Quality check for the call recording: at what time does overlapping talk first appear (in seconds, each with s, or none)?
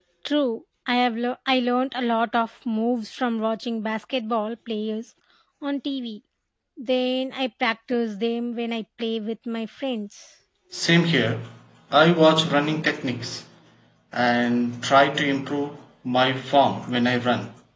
none